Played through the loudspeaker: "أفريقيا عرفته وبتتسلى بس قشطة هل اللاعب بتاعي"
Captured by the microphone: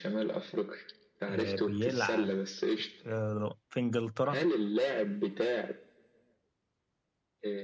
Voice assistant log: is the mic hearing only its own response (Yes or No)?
No